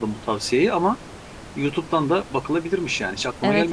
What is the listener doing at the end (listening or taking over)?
taking over